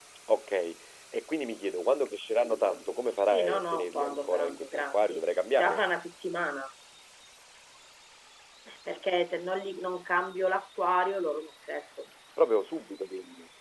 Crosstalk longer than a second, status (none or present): present